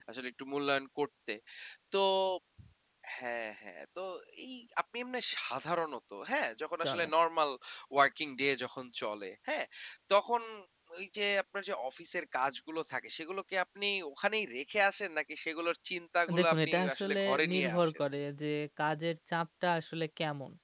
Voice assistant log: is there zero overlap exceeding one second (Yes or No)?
No